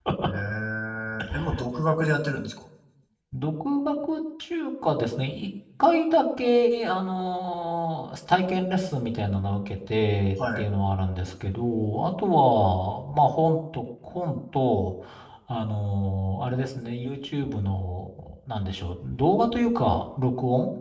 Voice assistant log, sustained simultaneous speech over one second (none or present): none